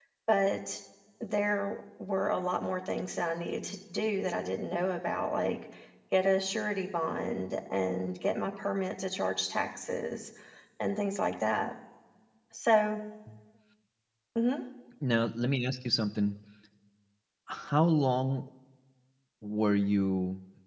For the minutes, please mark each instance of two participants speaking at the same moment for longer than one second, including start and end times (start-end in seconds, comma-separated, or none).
none